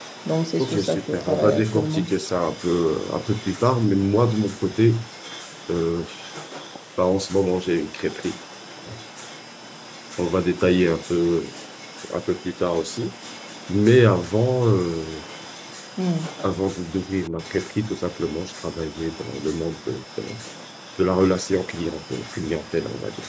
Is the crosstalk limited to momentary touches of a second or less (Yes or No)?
No